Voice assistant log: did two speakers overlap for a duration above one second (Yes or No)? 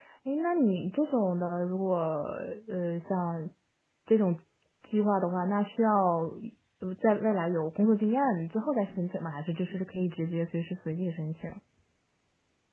No